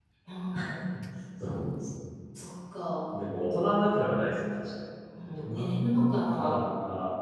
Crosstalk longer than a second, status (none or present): present